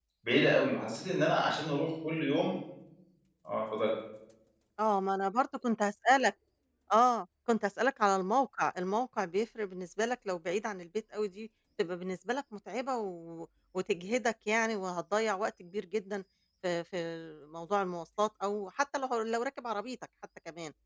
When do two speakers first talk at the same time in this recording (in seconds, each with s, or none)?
none